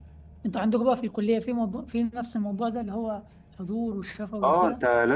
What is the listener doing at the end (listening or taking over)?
taking over